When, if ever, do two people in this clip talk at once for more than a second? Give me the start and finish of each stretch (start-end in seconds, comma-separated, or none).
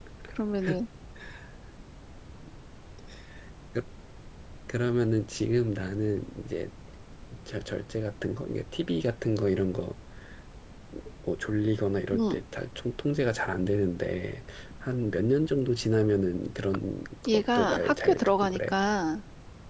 17.3-18.7